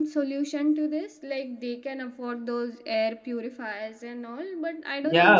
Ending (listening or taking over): taking over